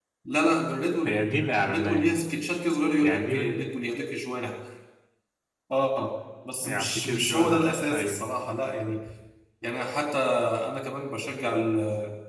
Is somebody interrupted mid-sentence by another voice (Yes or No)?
Yes